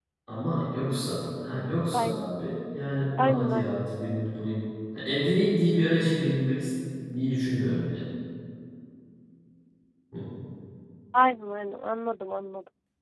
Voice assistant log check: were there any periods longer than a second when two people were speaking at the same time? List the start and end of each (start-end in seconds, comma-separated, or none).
none